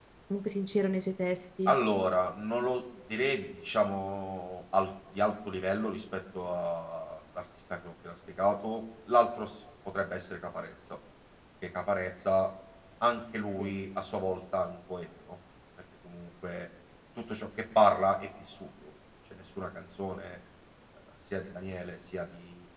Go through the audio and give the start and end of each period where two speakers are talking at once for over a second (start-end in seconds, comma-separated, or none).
none